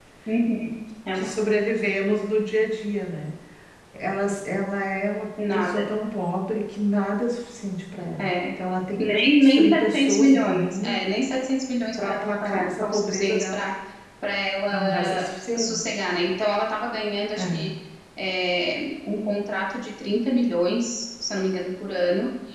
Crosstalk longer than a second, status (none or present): present